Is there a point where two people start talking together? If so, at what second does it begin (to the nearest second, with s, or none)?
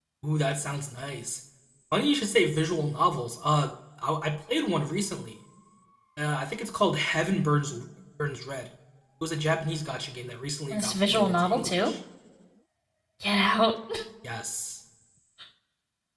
11 s